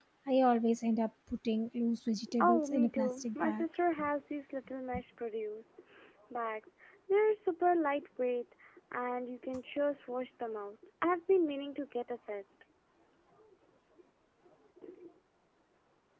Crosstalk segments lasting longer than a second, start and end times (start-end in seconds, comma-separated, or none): 2.4-3.6